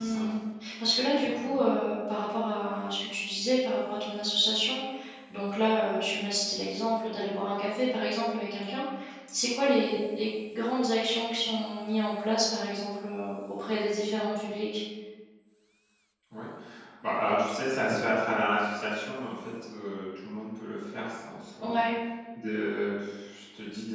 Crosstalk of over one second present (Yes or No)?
No